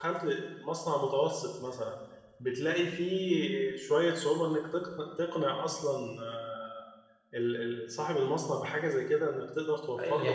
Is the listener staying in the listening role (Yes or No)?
No